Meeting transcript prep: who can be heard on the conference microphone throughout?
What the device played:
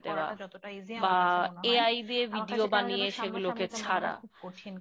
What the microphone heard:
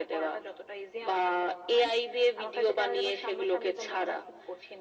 echo only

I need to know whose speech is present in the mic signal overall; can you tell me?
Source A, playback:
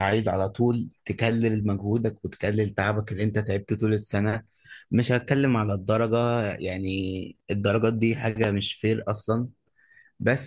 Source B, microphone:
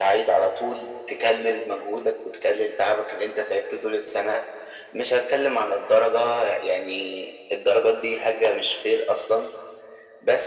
echo only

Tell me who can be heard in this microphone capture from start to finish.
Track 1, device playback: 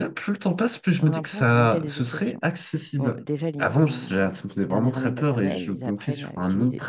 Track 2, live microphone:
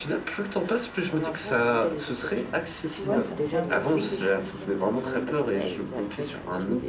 both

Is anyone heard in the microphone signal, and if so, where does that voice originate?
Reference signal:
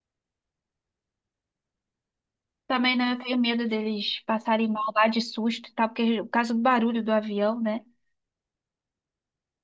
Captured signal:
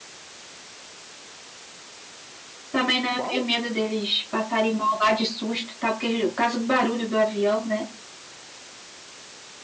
both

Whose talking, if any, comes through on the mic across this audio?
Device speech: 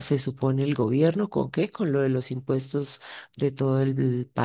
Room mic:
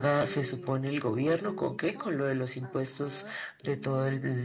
both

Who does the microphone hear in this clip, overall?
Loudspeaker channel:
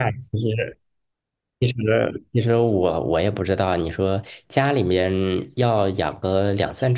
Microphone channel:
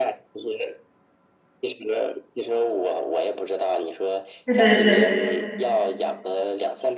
both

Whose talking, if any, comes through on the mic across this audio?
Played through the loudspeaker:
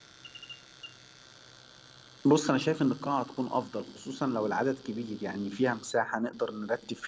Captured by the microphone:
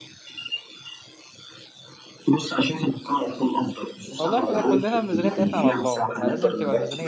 both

